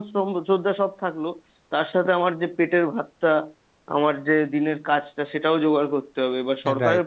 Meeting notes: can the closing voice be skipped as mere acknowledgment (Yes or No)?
Yes